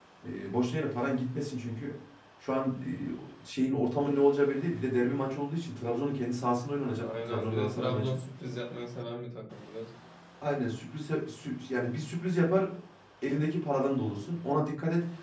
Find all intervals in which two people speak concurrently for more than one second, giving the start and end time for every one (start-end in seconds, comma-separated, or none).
7.0-8.2